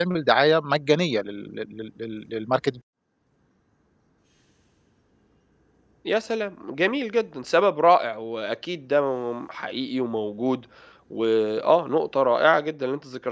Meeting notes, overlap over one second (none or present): none